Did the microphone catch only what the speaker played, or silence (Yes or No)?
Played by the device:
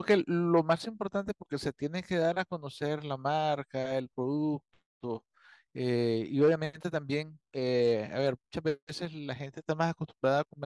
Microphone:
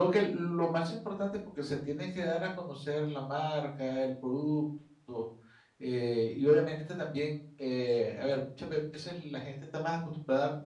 Yes